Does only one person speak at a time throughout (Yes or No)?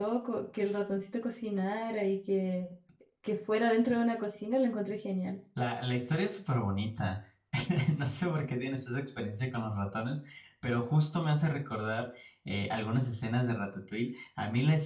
Yes